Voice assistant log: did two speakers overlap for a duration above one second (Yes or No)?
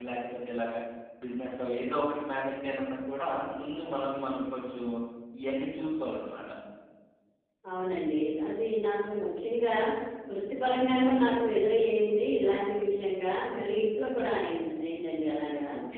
No